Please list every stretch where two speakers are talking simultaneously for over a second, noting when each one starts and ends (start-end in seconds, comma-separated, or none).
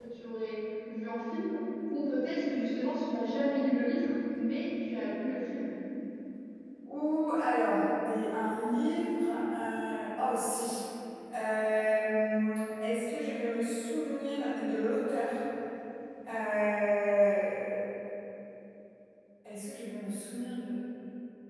none